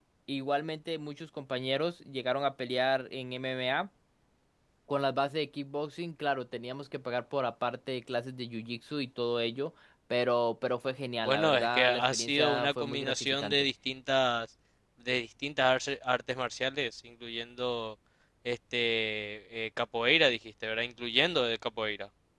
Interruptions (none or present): present